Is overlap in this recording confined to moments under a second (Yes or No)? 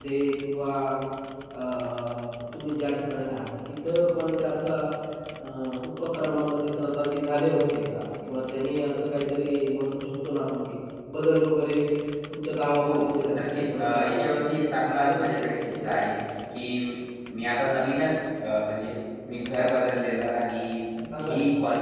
No